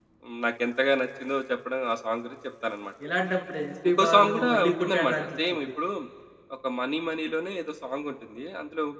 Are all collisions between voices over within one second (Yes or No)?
No